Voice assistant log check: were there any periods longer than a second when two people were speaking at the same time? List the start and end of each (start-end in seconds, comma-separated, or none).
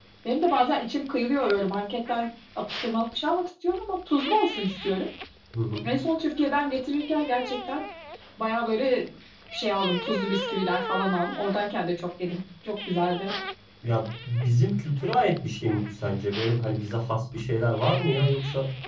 none